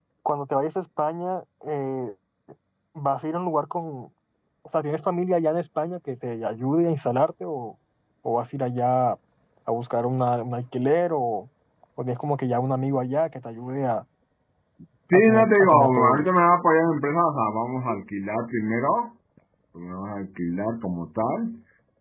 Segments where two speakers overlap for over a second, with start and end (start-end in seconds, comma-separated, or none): 15.1-16.5